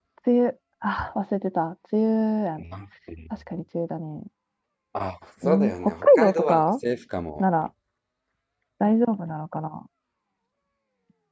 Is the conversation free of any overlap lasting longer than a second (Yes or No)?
No